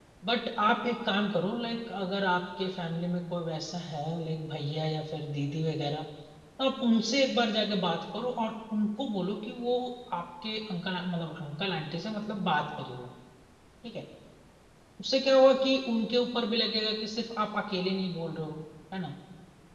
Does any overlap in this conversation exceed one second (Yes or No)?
No